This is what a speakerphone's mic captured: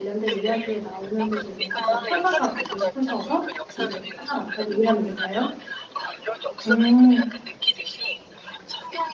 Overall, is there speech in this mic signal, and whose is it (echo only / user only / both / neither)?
both